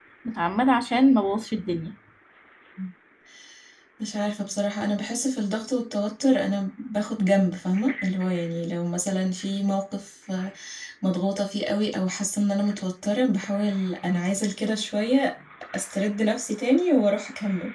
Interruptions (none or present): none